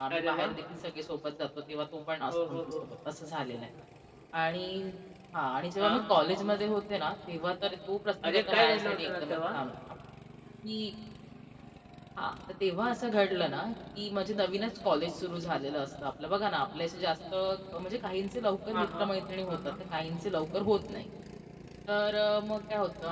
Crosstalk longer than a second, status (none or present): present